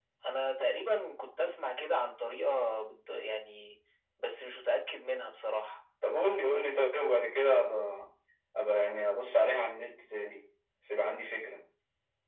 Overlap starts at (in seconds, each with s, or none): none